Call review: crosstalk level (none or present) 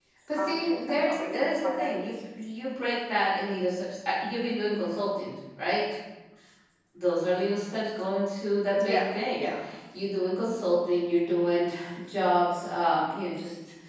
present